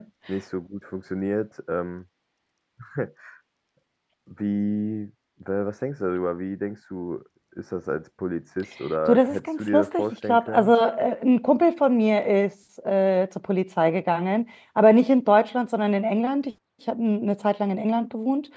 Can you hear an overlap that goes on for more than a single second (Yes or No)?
Yes